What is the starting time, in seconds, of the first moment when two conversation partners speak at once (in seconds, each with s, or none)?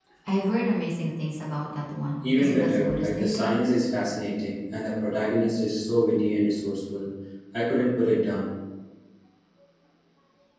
2.2 s